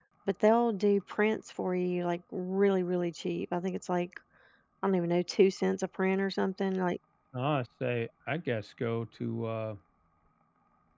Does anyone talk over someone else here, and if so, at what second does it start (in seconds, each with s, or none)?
none